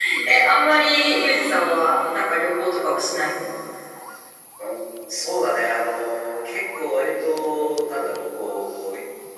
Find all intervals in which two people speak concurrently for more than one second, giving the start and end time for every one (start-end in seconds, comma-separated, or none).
none